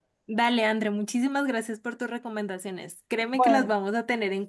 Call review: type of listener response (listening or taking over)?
listening